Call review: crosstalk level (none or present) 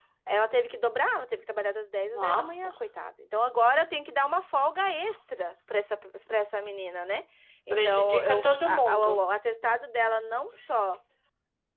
present